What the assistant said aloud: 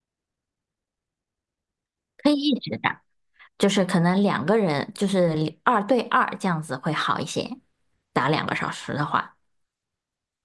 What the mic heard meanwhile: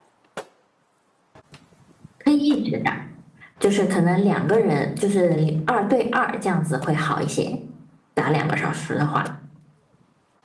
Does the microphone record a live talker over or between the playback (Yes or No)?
No